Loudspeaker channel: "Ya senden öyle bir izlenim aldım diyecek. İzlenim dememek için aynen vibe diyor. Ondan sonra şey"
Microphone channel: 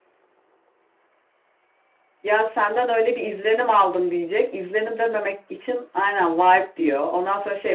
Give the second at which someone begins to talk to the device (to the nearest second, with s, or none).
none